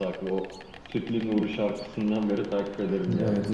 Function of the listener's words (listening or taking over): taking over